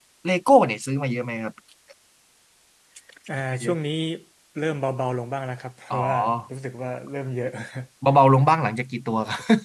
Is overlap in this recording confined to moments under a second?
Yes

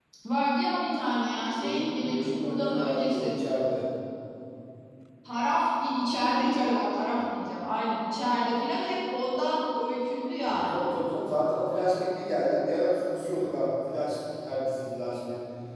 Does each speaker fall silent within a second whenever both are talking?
No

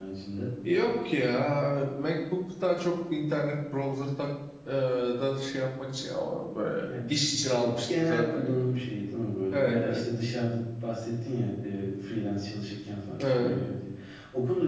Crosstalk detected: Yes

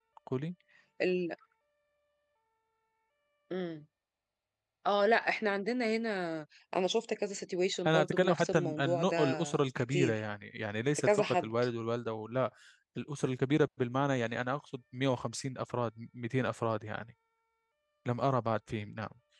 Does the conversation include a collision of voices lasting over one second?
Yes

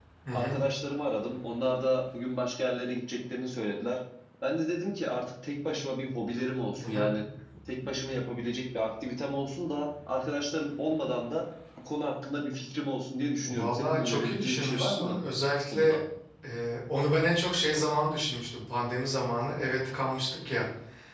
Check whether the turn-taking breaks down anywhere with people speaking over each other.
Yes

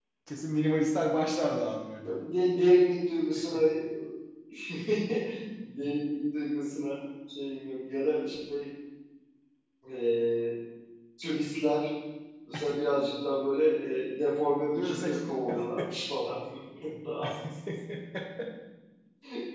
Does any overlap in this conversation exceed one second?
No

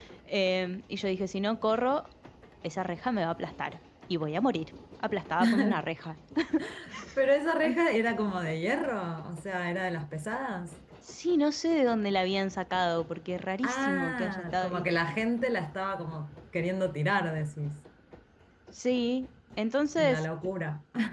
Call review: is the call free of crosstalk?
No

